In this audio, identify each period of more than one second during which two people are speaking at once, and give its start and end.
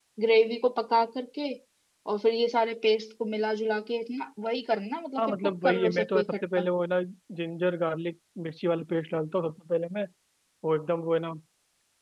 5.2-6.7

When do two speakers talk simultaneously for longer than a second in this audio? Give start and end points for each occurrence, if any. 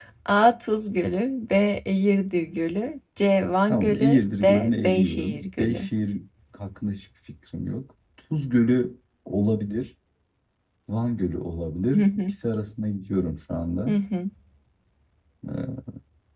3.7-5.9

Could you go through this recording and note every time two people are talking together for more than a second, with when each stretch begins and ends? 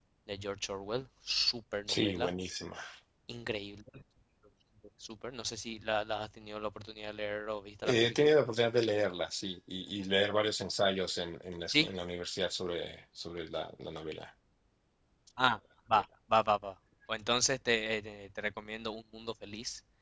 none

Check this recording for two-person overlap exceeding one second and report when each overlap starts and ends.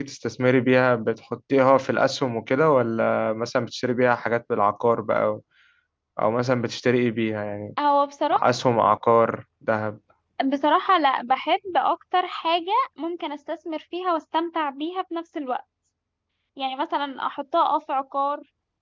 none

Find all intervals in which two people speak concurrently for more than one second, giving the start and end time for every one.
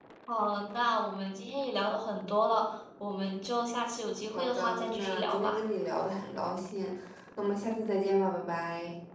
4.3-5.6

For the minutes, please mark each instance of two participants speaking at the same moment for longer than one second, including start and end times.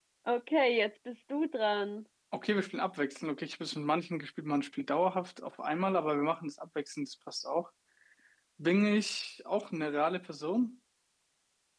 none

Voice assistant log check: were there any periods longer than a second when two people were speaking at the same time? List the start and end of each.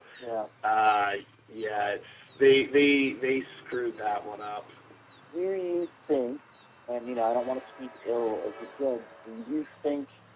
none

